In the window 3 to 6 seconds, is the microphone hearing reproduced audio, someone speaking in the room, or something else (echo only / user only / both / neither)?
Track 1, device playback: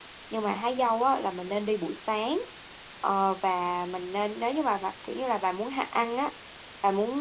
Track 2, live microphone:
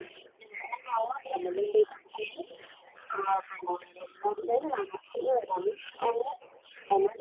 echo only